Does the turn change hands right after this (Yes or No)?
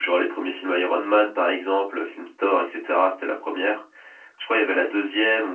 No